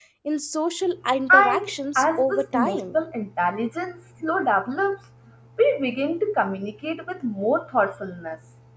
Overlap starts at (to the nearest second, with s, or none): 1 s